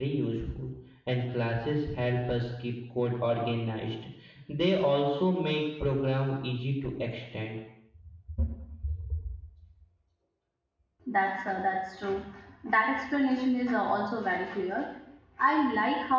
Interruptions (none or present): none